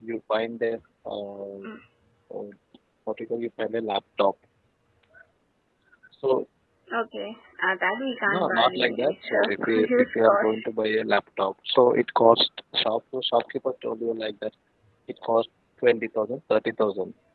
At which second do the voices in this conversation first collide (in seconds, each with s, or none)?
8.3 s